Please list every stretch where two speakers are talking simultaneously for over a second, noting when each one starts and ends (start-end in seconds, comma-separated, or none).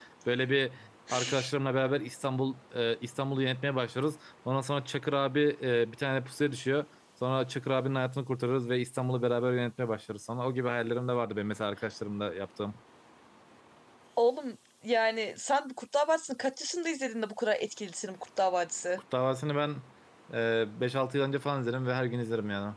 none